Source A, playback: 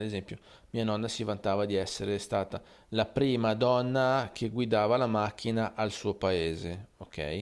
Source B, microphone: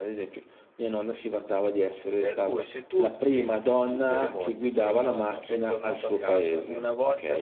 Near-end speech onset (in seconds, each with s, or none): 2.2 s